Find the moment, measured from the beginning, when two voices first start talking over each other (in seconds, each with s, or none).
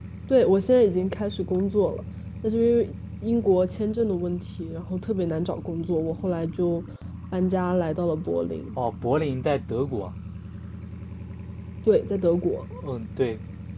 none